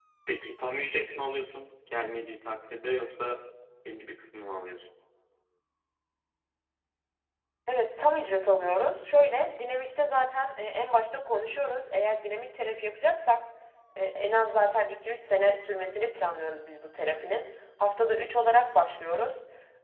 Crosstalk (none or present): none